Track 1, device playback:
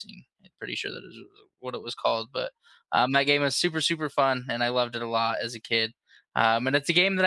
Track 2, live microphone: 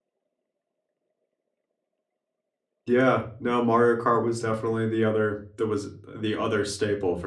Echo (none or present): none